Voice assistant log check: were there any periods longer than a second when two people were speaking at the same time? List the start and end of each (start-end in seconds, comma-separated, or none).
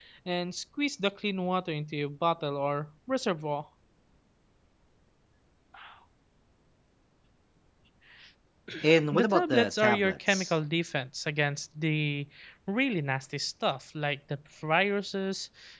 9.1-10.5